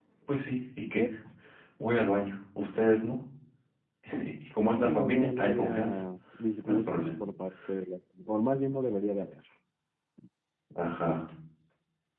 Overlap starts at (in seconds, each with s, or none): 4.7 s